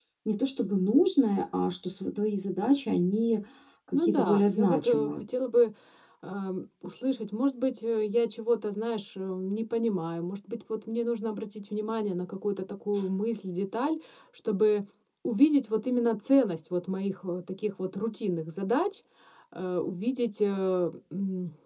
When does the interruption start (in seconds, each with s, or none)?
3.9 s